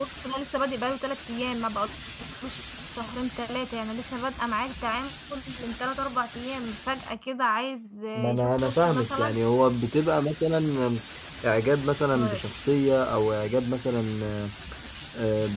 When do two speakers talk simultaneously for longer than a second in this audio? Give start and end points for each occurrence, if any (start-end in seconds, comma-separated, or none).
8.2-9.4